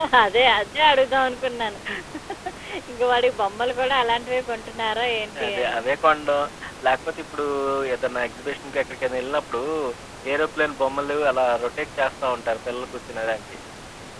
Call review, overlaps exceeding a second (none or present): none